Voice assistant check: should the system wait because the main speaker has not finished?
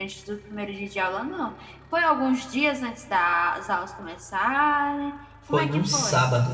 No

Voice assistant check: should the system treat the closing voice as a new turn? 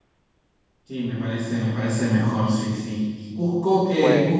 No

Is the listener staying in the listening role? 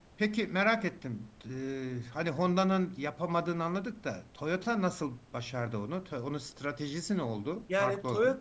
No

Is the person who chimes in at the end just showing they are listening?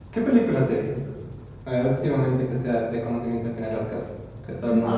No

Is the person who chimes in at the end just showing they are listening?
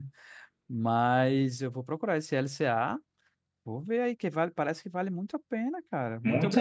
No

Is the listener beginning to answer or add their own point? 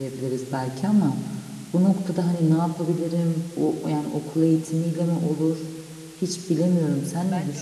Yes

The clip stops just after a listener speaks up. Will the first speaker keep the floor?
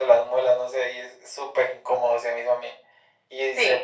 Yes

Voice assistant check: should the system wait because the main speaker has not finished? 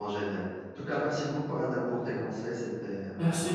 No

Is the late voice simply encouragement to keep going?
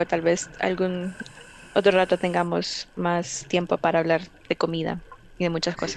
No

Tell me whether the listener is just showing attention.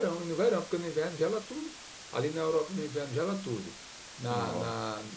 Yes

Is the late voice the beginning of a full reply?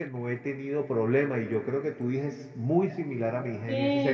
Yes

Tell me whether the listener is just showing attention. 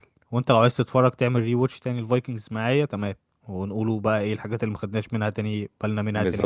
No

